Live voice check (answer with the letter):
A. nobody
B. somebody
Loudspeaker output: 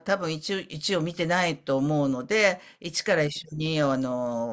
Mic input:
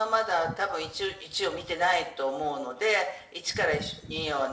A